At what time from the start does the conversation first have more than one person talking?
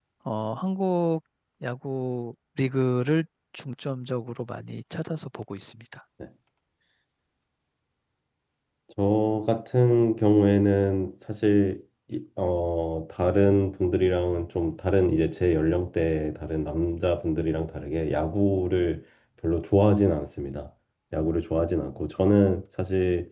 none

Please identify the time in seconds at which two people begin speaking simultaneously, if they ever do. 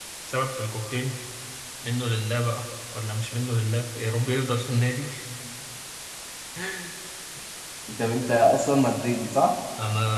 none

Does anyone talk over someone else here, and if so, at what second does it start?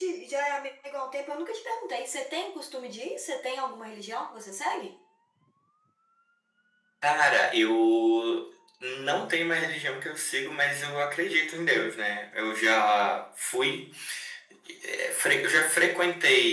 none

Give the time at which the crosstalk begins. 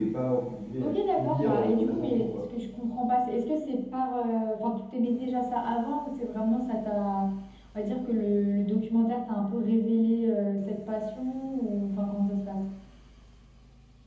0.8 s

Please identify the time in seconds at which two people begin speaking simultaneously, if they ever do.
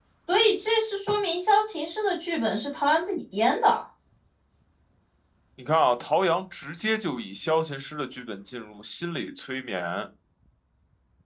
none

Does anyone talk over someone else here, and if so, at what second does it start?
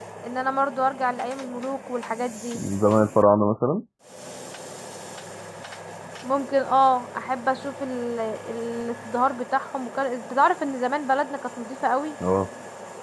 none

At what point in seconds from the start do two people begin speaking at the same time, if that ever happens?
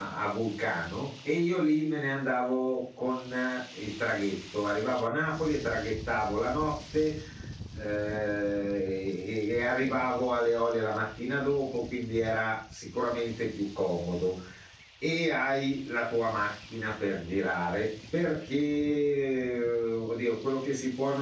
none

